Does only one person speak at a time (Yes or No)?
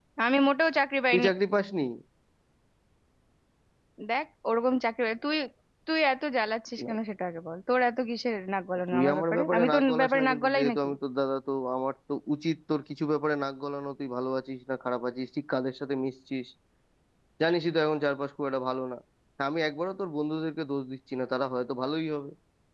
No